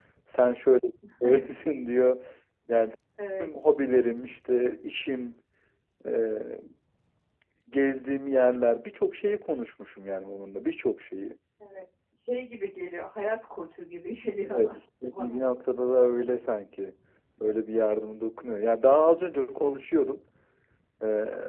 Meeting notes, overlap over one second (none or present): none